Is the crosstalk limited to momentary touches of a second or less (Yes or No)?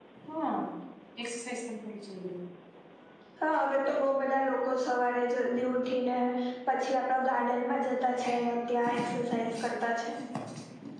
Yes